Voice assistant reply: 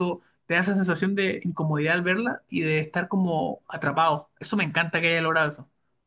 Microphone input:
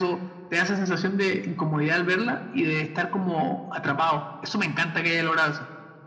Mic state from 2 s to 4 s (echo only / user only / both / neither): echo only